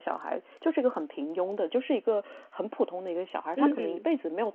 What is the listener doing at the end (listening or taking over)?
listening